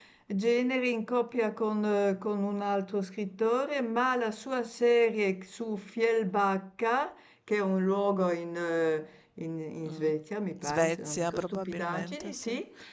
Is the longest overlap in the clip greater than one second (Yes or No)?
Yes